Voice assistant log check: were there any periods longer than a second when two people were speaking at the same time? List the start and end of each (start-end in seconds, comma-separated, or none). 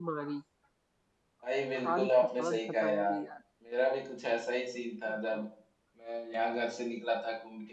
1.8-3.2